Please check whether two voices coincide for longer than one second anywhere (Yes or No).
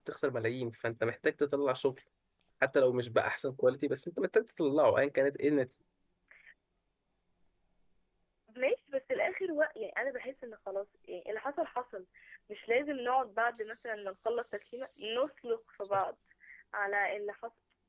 No